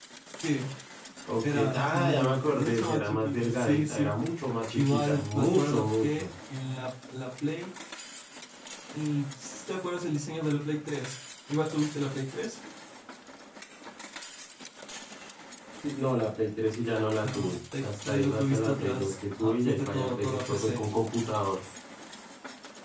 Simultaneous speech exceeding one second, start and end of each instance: 1.4-4.1, 4.7-6.3, 17.2-20.8

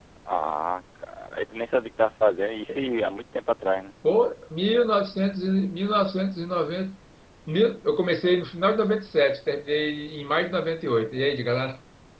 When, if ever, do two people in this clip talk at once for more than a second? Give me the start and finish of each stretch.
none

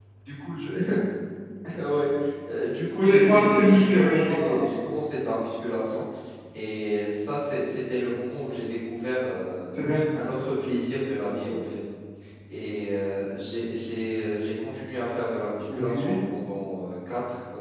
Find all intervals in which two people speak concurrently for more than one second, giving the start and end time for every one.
2.9-4.6

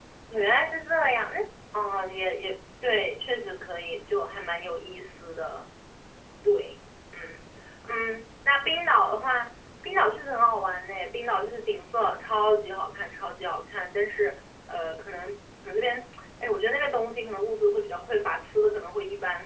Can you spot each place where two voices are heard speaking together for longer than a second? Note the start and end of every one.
none

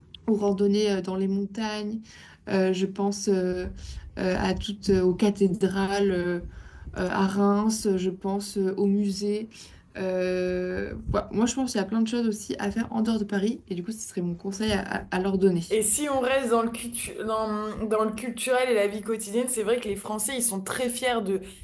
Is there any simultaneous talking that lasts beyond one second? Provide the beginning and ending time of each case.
none

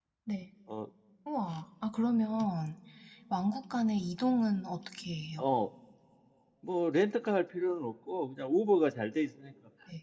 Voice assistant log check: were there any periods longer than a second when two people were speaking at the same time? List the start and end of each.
none

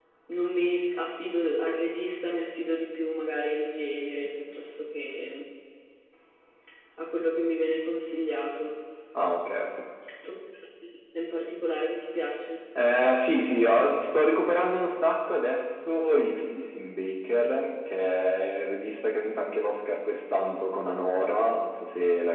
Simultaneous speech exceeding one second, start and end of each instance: none

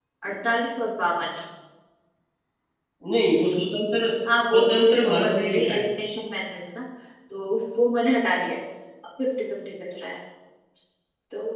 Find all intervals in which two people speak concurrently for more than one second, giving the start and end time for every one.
4.5-5.8

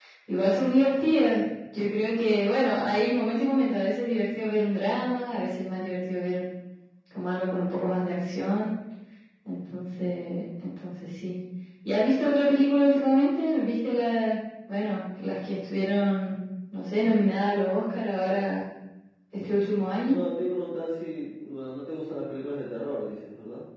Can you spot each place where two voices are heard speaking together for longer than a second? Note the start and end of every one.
none

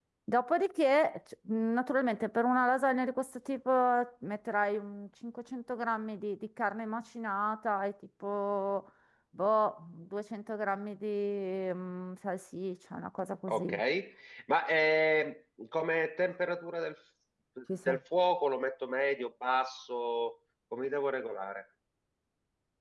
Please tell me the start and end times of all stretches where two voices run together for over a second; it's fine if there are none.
none

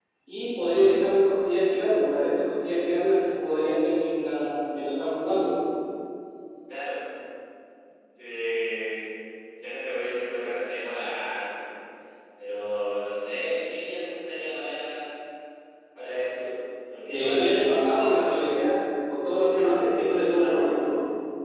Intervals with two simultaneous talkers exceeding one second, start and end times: 17.1-18.7

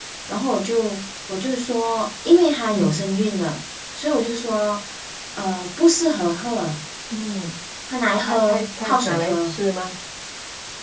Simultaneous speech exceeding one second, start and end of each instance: 8.2-9.6

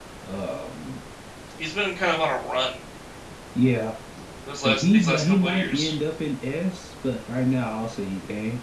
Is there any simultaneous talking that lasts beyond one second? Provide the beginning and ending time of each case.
4.7-5.9

